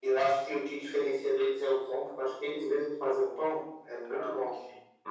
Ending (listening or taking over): taking over